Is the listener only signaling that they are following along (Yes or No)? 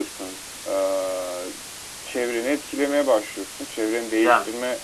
Yes